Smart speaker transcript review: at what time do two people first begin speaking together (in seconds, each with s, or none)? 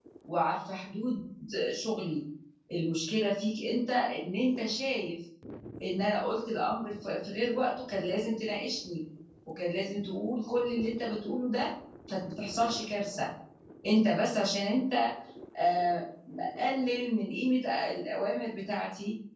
none